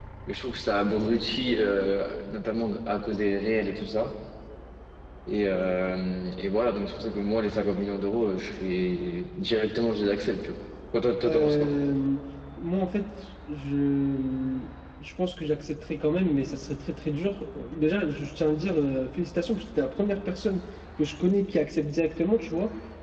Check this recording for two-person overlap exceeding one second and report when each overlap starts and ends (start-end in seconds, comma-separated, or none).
none